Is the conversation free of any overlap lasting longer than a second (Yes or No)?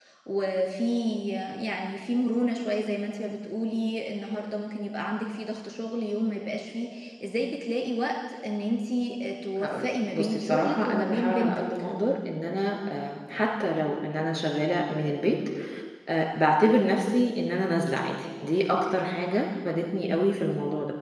No